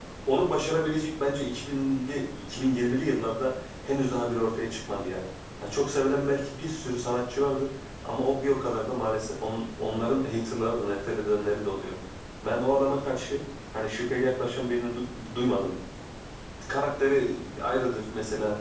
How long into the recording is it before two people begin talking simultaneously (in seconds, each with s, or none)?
none